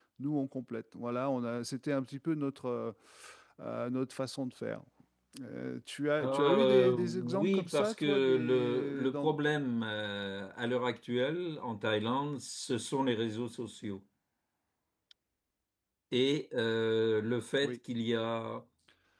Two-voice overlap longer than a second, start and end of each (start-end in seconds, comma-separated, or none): 6.2-9.3